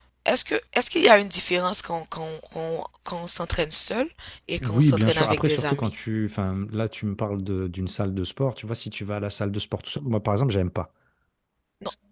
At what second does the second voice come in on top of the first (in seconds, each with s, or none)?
4.6 s